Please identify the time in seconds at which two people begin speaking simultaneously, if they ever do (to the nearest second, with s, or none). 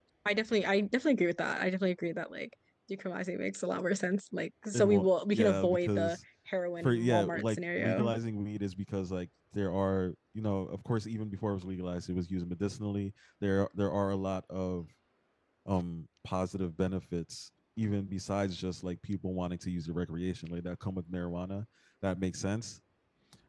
5 s